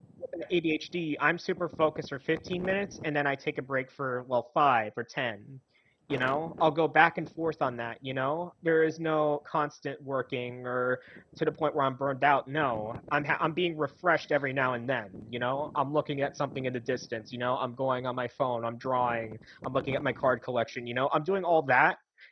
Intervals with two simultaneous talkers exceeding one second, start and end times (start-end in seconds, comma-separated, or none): none